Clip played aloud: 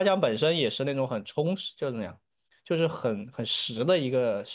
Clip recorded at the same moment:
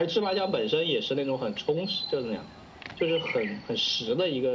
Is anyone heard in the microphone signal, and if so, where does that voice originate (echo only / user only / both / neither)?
echo only